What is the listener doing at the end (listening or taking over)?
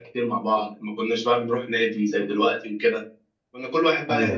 listening